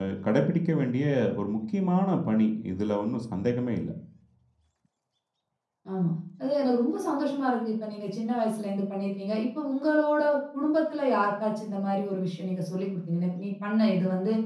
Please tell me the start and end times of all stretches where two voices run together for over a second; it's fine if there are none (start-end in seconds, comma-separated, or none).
none